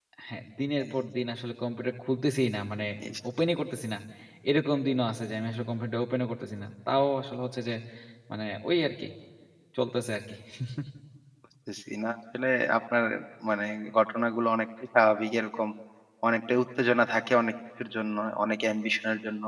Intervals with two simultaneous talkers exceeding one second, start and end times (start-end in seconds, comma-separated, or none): none